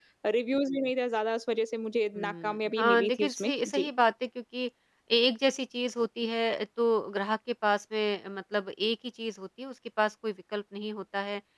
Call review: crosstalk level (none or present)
present